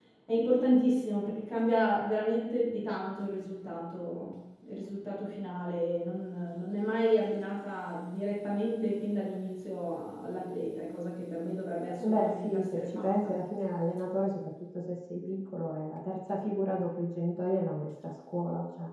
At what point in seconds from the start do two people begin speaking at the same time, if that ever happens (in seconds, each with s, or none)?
12.0 s